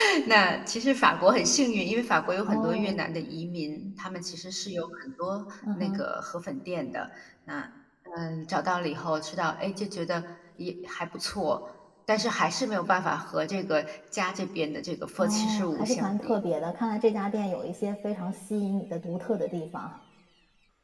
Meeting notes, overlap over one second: present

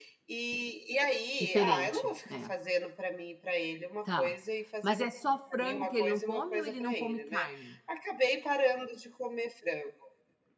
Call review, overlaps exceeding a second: present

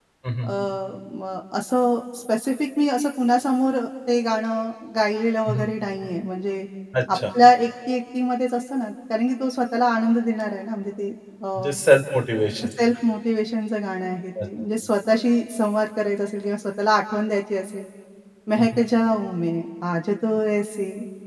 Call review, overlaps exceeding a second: none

